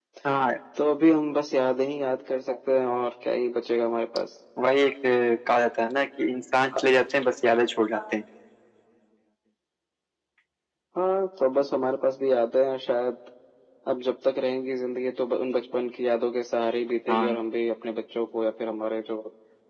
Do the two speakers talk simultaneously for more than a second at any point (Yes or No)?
No